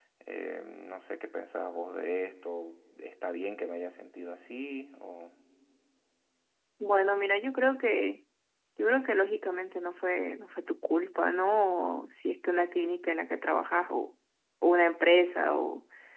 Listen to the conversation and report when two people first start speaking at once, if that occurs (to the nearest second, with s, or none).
none